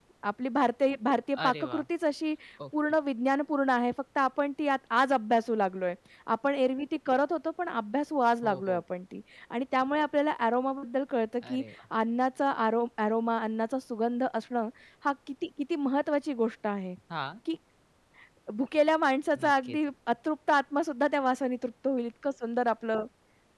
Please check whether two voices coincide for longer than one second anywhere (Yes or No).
No